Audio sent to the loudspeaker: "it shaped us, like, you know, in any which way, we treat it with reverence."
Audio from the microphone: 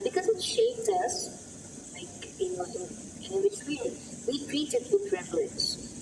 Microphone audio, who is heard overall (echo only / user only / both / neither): echo only